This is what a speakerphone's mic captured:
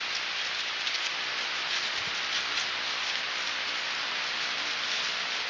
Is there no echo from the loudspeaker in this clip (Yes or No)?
Yes